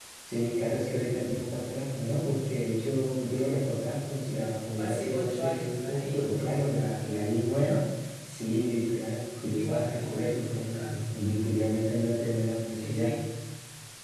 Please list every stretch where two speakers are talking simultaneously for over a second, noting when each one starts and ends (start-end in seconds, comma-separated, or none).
4.8-6.6, 9.5-11.0